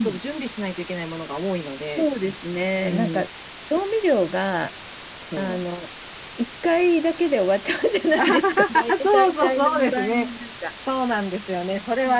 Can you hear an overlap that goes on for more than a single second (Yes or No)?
Yes